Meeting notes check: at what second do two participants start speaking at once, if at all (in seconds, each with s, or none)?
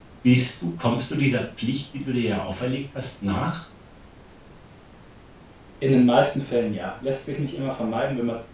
none